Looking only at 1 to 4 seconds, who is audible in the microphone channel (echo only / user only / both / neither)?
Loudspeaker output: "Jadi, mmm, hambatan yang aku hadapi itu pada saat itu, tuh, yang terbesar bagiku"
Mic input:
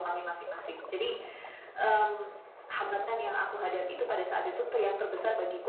echo only